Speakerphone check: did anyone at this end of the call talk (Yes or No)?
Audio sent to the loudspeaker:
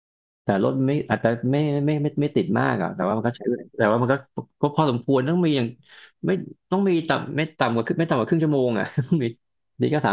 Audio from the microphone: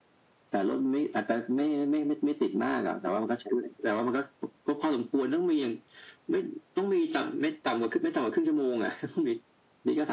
No